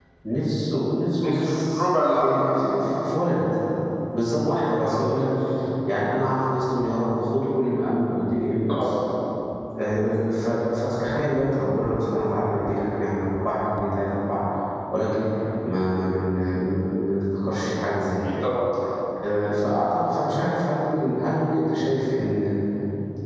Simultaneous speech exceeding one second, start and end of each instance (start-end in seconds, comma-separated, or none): 1.2-2.4